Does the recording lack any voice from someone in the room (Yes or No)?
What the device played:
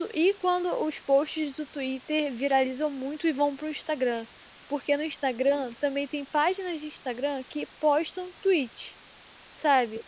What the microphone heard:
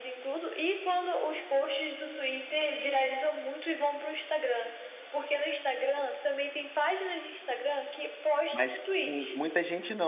No